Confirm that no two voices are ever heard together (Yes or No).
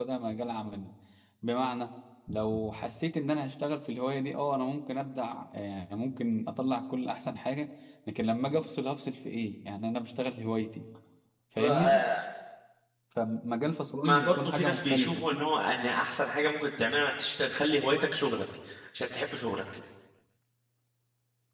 No